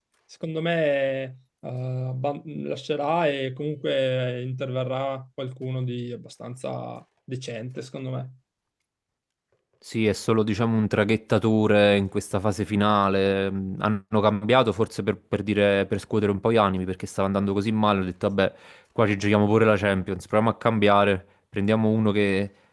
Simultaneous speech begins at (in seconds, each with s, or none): none